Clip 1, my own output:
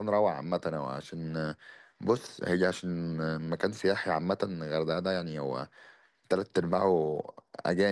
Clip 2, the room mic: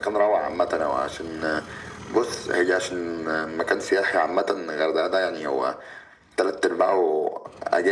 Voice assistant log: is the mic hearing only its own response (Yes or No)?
Yes